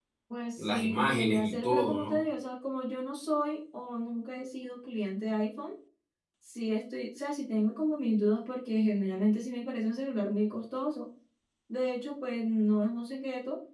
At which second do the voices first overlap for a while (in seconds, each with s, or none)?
0.6 s